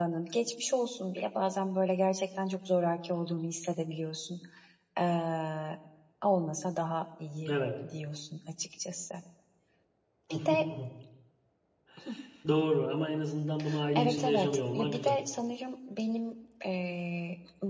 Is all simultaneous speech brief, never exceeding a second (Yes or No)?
No